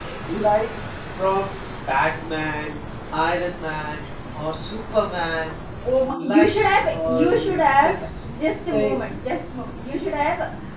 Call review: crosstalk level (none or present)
present